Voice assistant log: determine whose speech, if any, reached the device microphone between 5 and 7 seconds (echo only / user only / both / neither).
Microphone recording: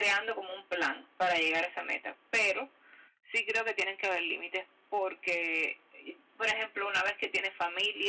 echo only